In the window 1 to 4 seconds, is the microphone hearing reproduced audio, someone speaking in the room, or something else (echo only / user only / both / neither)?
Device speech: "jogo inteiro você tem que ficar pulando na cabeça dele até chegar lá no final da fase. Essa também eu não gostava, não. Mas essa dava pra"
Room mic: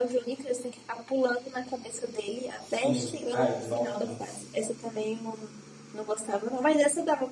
both